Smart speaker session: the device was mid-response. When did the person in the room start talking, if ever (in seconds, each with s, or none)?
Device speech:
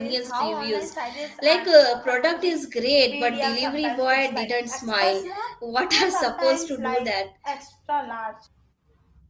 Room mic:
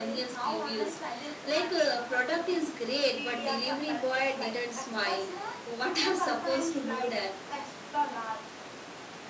none